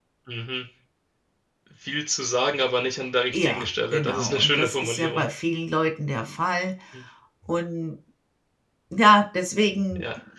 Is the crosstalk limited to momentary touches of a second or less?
No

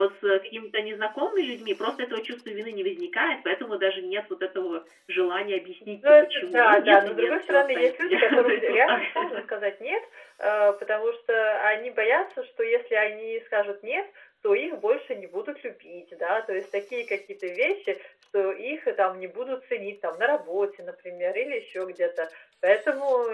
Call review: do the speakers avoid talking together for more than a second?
No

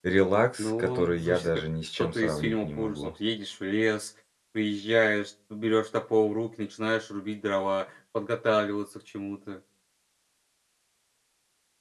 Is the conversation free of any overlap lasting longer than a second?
No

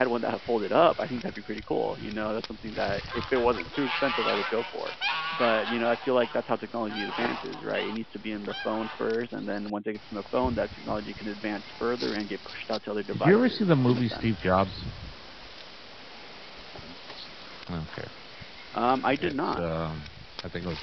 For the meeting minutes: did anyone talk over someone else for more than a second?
Yes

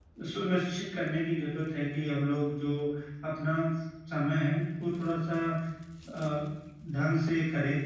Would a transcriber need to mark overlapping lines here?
No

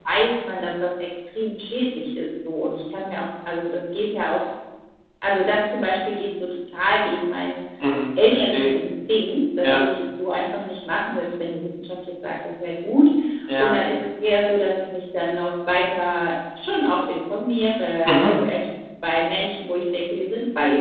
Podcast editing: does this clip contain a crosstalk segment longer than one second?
No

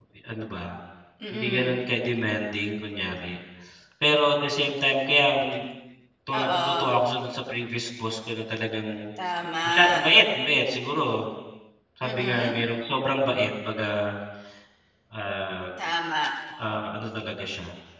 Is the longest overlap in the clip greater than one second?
No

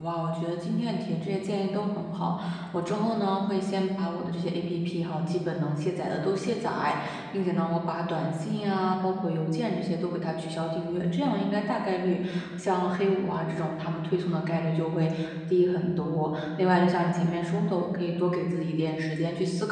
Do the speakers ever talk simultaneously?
No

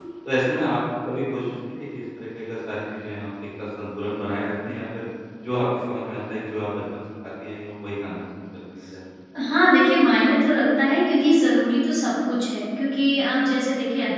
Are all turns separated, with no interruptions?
Yes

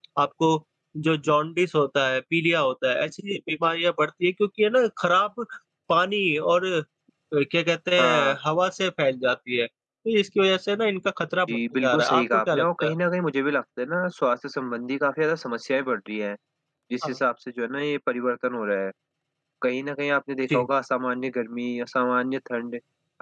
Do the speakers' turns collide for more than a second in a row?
Yes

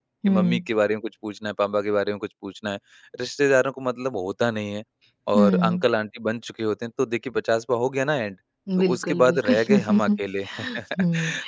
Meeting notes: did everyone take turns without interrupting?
No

